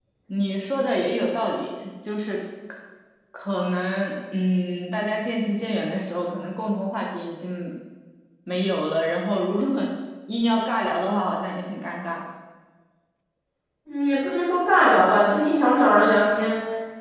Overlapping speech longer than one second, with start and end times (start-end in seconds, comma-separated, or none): none